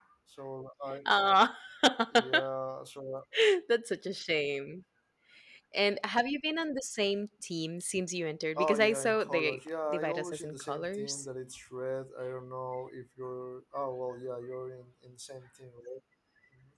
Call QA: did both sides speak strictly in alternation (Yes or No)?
No